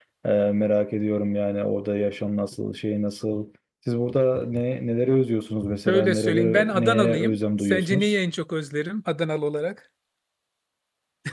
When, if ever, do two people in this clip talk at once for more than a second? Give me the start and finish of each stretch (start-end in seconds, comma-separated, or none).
5.9-8.2